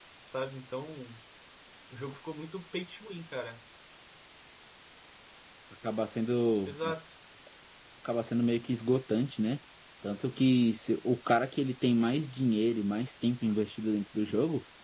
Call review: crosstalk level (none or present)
none